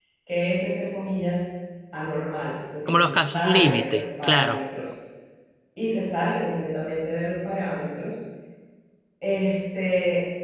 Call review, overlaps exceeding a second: present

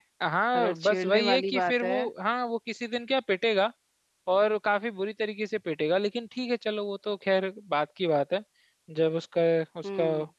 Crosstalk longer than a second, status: present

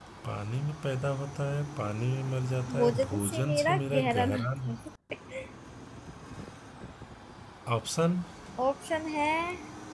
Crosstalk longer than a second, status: present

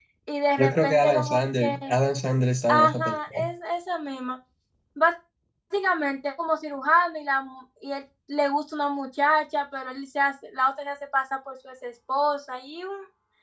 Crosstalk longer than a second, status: present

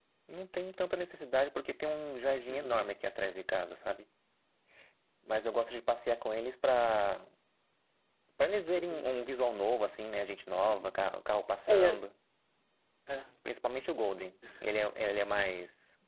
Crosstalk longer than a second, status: none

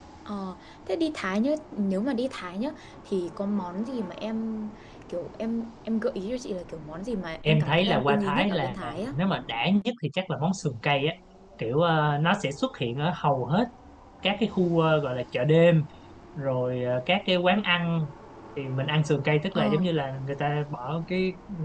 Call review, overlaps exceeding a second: present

